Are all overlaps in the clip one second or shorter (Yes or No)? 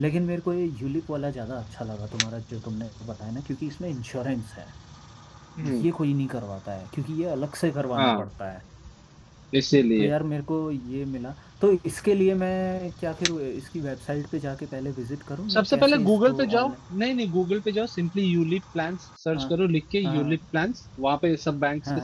No